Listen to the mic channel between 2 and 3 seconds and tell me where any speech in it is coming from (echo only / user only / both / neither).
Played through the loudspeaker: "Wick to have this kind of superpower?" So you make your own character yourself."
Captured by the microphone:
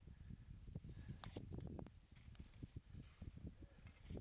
neither